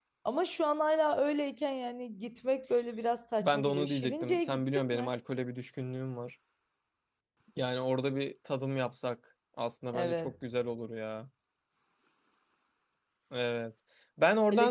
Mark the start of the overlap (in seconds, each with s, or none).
3.4 s